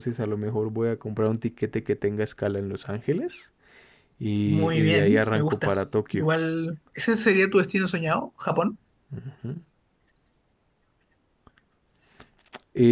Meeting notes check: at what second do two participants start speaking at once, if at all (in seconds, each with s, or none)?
4.5 s